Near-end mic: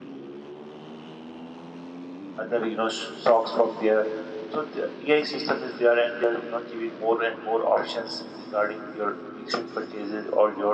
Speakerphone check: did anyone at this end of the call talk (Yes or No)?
Yes